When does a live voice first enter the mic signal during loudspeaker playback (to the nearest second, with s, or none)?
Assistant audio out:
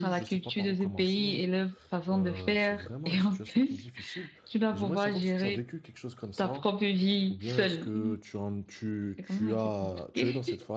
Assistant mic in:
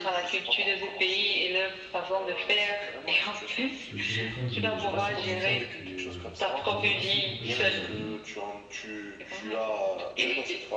4 s